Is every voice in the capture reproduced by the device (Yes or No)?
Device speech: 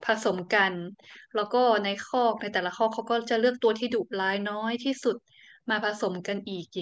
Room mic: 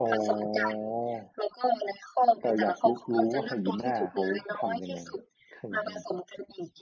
No